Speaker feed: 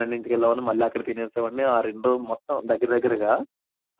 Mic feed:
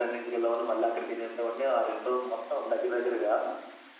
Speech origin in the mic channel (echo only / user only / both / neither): echo only